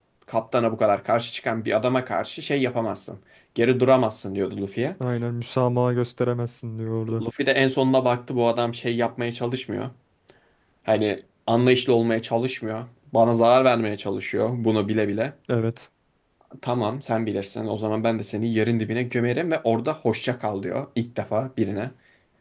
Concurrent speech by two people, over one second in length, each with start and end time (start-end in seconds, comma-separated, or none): none